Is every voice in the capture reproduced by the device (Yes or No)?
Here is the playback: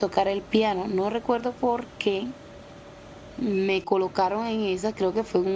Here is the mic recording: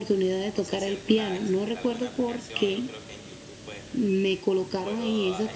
No